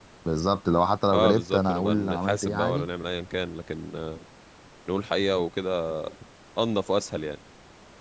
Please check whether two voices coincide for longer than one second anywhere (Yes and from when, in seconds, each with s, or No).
Yes, from 1.1 s